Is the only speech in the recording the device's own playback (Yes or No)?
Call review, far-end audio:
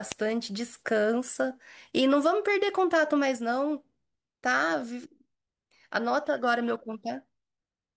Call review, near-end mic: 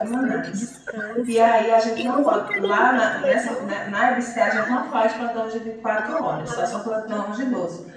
No